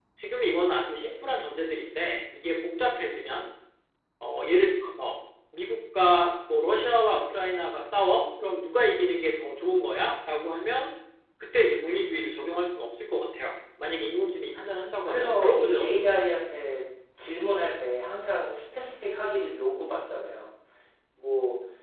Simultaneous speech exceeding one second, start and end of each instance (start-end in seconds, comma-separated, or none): 15.0-16.2